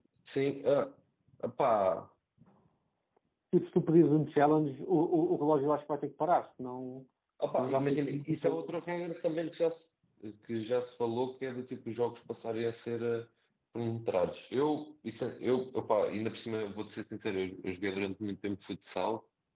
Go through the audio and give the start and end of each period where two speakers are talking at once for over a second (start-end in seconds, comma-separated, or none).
7.6-8.8